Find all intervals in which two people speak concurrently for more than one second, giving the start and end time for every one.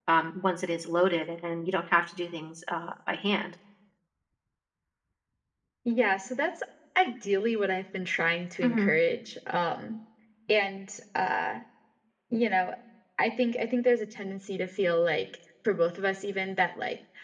none

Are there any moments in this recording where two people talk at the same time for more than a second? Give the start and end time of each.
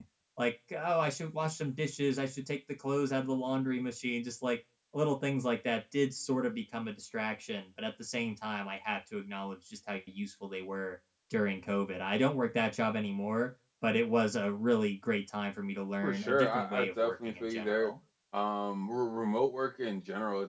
16.0-17.9

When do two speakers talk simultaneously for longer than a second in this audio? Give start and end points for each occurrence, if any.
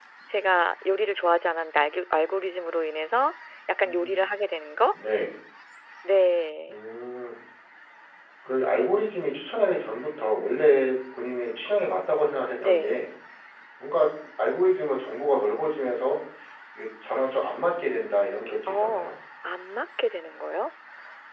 none

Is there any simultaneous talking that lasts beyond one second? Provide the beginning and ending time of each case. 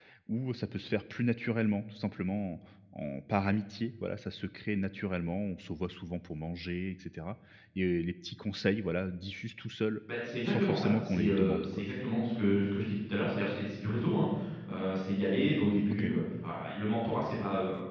10.4-11.8

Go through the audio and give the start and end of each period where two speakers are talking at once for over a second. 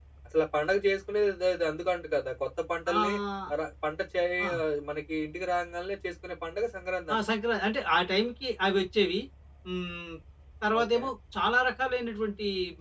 none

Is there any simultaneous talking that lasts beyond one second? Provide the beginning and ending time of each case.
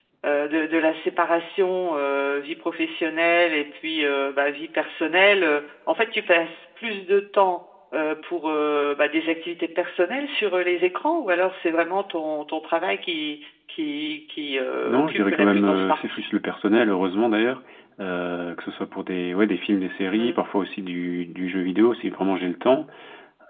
14.8-16.2

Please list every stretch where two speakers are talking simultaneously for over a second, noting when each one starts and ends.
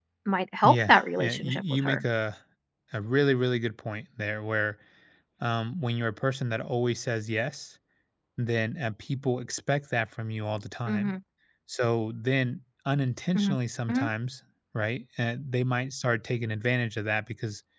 0.6-2.0

